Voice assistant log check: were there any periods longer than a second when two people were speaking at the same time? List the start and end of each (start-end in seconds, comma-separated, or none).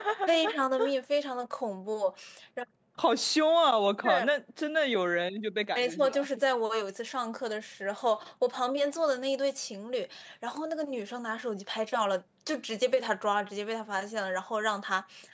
none